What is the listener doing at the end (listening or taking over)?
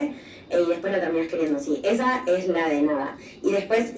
listening